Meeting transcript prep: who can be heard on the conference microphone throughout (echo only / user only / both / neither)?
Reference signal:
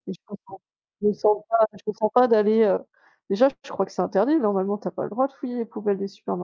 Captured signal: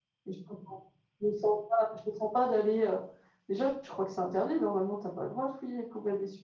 echo only